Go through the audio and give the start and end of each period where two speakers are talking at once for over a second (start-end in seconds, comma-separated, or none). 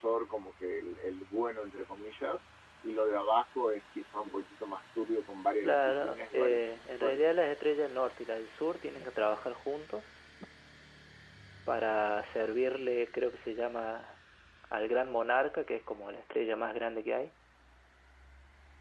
5.6-7.2